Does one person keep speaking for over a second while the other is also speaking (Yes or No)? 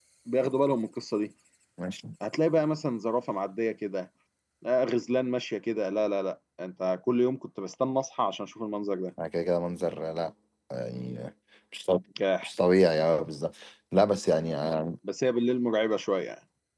No